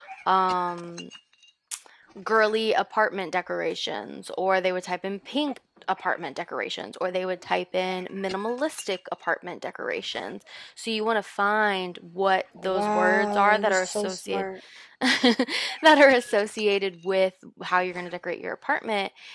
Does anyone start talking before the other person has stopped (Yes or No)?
Yes